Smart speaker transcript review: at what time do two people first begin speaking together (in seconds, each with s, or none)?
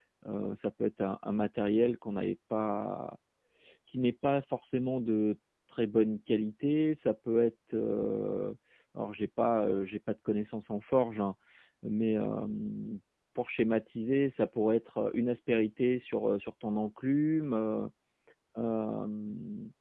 none